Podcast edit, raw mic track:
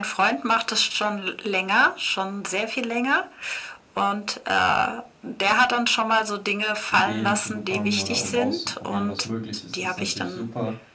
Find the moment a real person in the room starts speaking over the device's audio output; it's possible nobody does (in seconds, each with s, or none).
6.9 s